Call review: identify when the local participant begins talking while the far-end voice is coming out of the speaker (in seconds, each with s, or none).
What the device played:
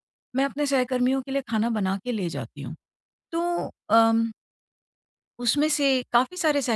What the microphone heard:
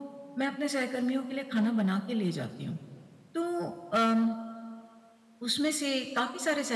none